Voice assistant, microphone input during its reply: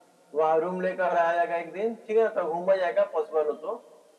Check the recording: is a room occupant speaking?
No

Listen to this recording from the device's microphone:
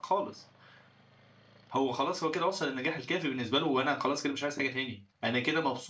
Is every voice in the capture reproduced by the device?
No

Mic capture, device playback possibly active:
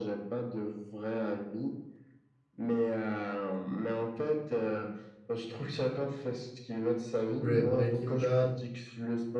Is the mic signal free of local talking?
No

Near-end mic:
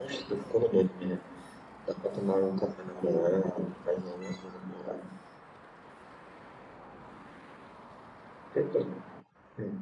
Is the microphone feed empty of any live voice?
Yes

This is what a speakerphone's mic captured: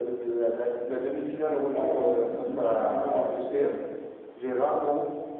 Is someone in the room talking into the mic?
No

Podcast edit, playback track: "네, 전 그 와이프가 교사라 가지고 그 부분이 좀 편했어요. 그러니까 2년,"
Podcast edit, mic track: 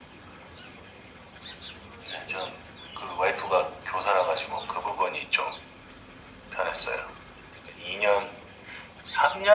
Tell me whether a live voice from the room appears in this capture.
No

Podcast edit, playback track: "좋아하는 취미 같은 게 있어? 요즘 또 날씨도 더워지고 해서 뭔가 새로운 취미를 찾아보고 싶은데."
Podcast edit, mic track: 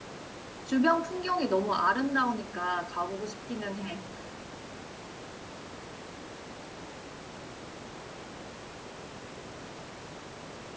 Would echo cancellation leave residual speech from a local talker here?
Yes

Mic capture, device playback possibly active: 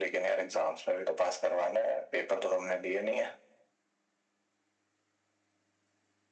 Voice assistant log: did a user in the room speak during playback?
No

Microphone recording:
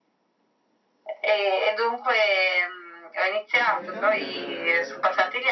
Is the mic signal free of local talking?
No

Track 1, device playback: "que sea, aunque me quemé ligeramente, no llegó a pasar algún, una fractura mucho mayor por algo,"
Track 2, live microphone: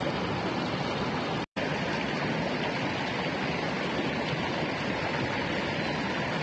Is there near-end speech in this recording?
No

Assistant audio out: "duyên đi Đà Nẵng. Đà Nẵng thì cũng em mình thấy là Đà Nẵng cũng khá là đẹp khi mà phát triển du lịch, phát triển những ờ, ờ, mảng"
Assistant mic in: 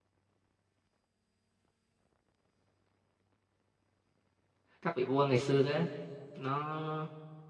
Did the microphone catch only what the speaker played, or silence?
No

